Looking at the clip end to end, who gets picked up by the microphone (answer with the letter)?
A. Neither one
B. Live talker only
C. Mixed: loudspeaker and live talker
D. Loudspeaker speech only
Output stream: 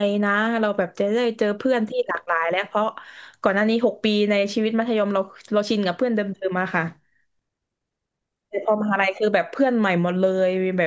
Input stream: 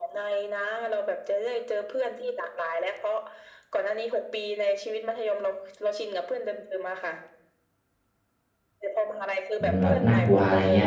C